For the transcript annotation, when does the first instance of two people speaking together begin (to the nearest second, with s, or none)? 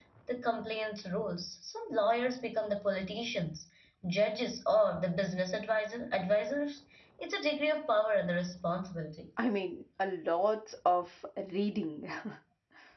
none